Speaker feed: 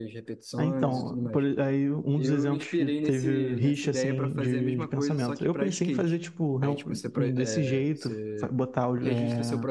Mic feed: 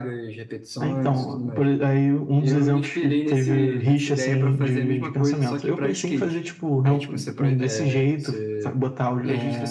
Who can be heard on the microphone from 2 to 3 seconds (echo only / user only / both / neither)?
echo only